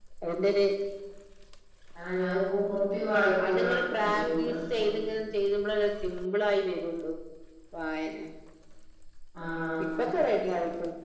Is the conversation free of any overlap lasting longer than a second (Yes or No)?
No